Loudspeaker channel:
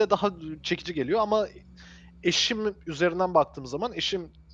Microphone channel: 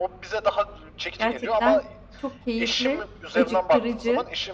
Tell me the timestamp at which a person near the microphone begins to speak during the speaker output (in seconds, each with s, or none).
1.2 s